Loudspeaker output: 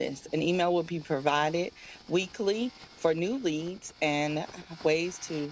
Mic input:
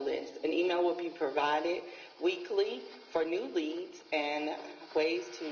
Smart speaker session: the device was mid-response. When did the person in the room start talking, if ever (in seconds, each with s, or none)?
none